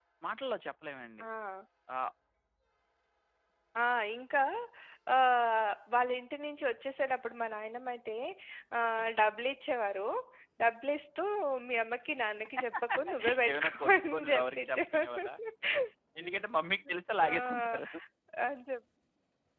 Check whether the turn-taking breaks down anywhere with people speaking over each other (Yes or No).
Yes